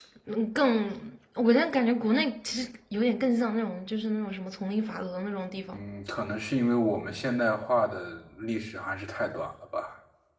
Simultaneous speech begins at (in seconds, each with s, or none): none